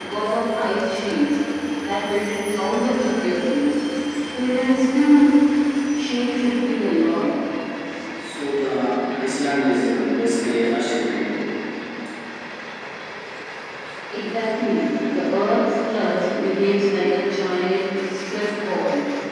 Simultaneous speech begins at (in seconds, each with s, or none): none